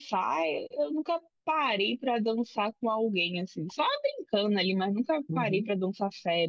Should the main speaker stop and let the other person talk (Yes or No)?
No